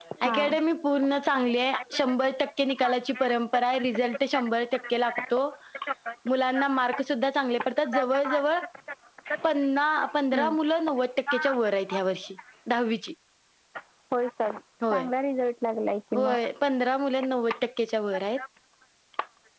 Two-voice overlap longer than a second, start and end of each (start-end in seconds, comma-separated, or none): none